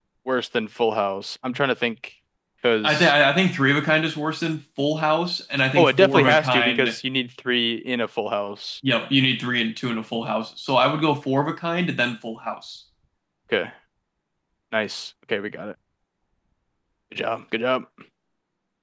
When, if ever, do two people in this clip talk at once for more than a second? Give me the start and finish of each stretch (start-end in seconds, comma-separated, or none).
5.8-7.0